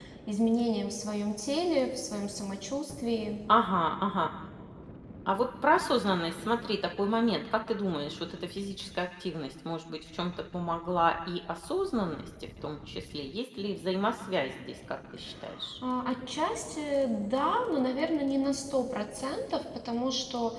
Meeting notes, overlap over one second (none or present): none